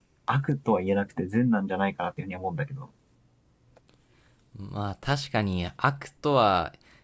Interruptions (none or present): none